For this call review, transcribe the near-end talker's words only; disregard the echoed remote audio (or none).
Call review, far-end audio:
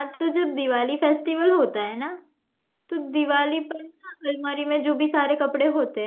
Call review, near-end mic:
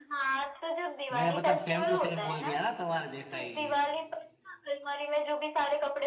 मैंने मतलब सेम टू सेम बोल दिया ना तुम्हारे जैसा ही